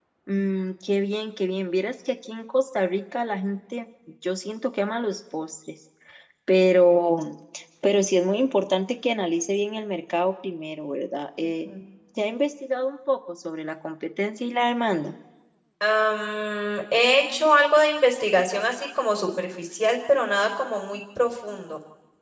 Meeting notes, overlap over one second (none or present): none